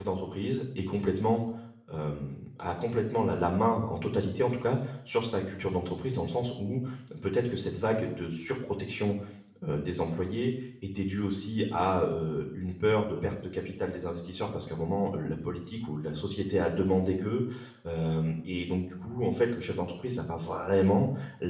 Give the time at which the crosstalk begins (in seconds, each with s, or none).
none